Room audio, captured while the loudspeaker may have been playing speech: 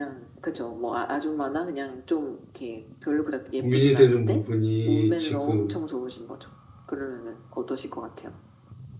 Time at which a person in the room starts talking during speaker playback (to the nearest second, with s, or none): 4 s